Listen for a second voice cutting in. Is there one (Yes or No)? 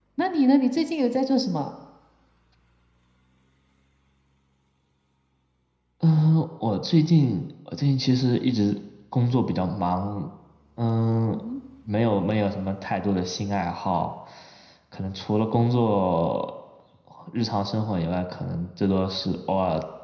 No